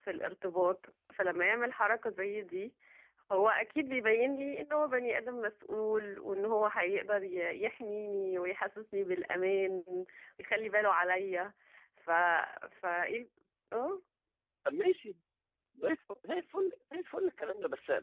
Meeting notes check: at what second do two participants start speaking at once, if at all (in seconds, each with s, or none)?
none